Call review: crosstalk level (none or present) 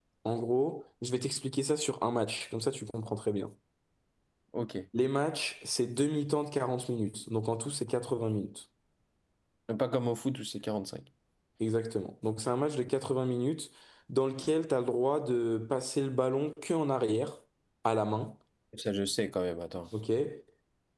none